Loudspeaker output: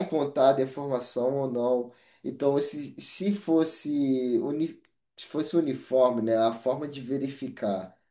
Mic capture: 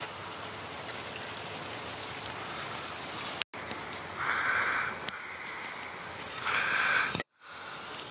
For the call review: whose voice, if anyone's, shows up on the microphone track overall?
neither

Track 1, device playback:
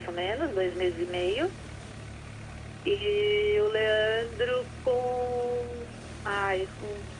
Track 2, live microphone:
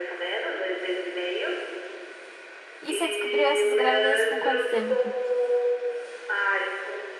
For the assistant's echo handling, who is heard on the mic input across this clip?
both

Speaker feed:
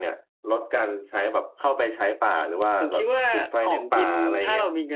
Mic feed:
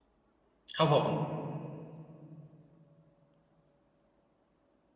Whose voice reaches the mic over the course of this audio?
user only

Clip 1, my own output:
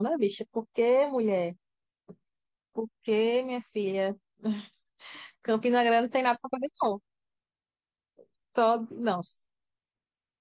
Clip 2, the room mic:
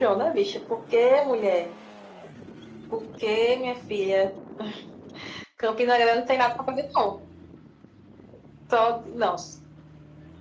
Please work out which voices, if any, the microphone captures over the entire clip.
echo only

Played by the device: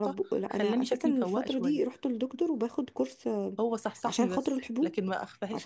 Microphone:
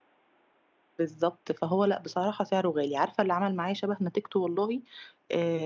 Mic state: user only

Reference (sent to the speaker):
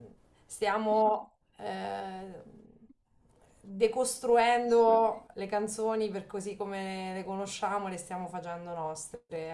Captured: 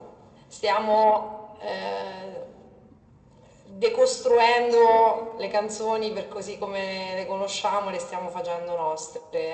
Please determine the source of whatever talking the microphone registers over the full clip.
echo only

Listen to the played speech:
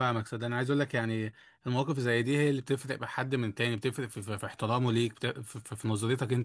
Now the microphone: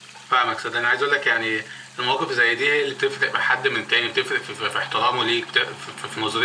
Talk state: echo only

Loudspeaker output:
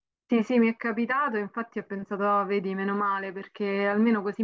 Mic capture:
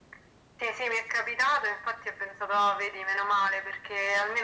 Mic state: echo only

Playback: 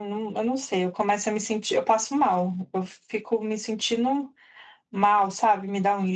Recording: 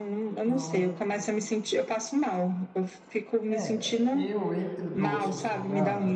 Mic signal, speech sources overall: both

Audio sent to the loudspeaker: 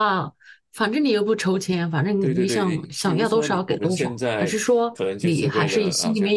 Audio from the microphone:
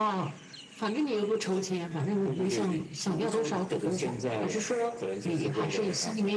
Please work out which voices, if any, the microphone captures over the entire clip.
echo only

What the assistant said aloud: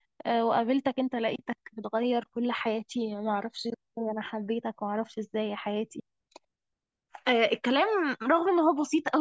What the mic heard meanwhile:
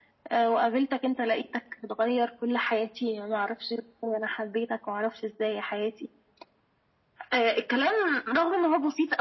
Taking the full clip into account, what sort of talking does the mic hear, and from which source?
echo only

